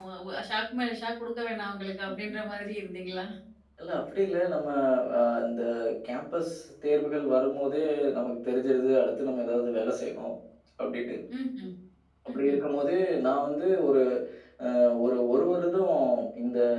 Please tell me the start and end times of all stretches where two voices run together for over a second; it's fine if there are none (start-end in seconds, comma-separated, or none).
none